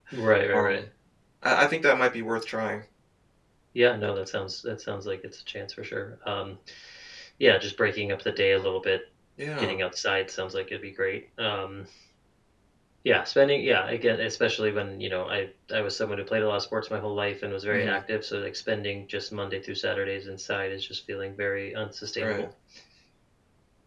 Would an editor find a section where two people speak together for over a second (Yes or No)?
No